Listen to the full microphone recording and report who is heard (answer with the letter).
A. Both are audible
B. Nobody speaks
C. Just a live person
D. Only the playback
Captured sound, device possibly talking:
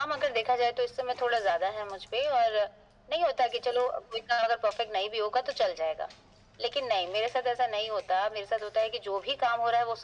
D